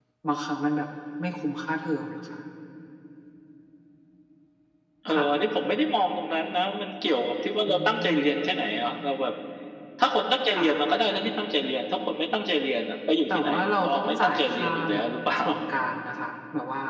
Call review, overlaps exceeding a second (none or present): present